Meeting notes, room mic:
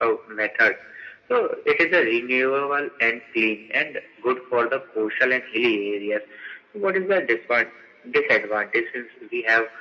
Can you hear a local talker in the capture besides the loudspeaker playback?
No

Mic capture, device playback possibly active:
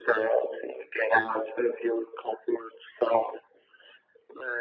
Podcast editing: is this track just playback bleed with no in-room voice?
Yes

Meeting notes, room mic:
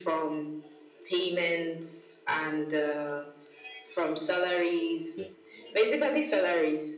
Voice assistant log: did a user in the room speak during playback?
Yes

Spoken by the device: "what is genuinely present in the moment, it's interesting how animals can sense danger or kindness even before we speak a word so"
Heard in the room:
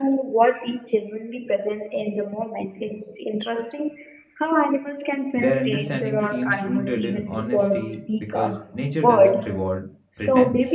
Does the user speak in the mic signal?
Yes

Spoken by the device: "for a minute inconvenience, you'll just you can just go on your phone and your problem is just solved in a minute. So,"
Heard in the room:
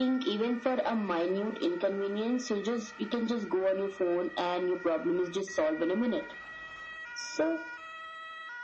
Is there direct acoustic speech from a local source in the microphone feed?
No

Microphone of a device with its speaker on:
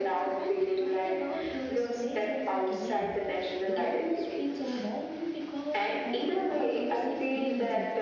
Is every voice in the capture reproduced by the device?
No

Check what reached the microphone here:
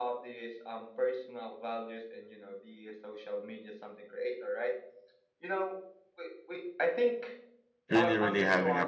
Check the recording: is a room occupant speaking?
Yes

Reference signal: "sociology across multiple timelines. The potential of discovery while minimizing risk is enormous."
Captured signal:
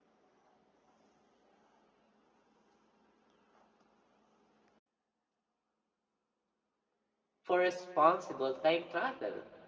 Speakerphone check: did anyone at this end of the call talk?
Yes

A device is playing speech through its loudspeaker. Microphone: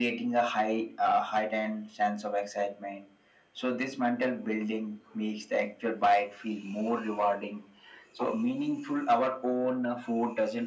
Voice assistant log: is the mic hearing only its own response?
Yes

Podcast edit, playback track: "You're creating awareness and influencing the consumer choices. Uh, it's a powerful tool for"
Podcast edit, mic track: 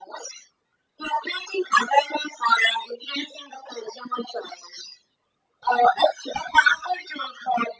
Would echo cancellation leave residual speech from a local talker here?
No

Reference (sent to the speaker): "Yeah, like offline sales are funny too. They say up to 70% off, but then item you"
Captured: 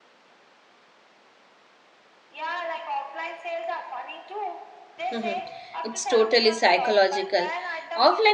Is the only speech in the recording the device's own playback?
No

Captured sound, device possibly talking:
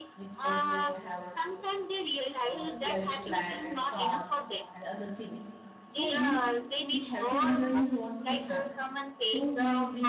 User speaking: Yes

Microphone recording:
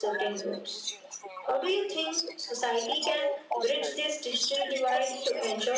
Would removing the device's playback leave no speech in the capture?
No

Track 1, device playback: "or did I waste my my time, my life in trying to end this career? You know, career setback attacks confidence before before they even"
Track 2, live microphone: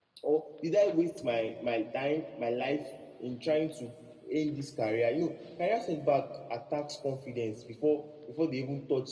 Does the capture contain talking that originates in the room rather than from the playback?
No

